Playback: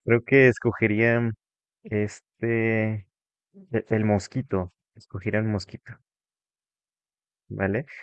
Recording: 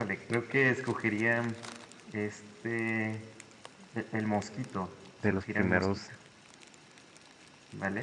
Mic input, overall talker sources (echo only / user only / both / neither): both